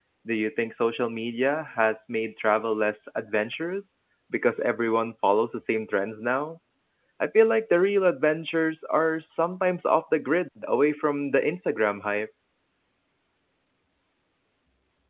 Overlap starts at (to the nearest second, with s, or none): none